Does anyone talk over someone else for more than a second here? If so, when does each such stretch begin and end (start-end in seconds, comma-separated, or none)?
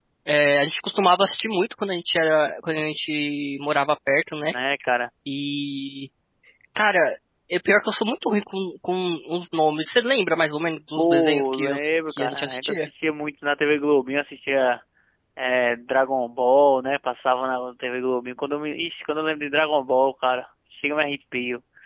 11.0-12.9